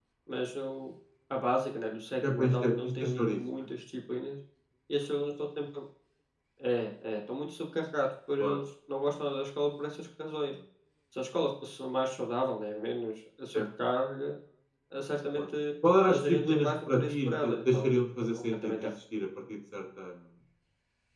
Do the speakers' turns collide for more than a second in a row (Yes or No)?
Yes